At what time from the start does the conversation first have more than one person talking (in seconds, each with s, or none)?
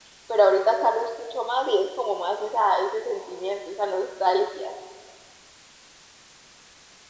none